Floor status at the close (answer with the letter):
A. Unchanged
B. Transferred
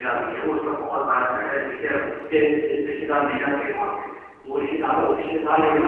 A